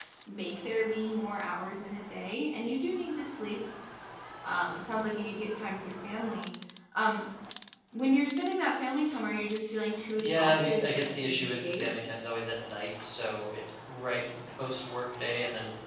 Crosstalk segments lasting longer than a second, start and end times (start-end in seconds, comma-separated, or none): 10.2-12.0